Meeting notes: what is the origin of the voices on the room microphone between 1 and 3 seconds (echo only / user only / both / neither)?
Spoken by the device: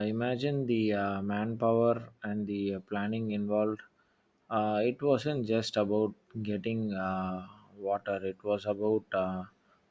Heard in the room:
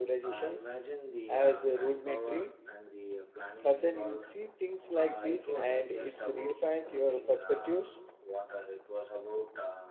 both